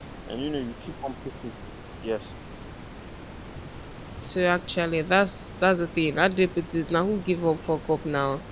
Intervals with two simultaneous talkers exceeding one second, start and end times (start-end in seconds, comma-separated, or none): none